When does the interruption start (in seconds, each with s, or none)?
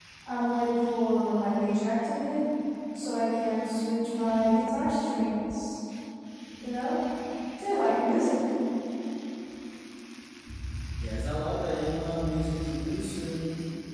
none